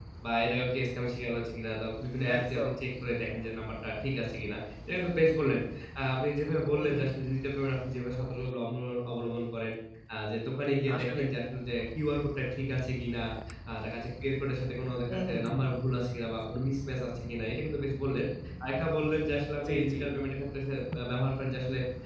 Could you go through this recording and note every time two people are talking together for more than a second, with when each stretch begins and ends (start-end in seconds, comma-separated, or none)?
none